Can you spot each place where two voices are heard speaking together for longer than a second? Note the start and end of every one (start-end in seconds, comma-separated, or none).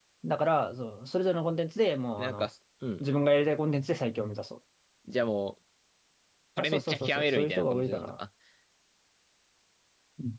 6.6-8.1